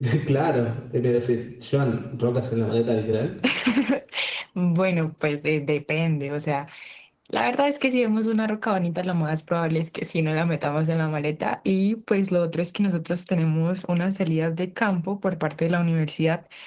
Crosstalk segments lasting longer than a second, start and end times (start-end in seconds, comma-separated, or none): none